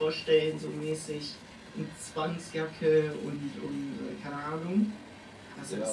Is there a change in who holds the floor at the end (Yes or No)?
Yes